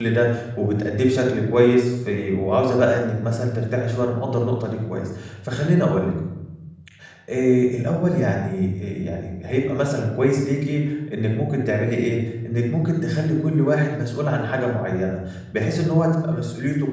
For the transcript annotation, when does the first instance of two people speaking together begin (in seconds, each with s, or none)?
none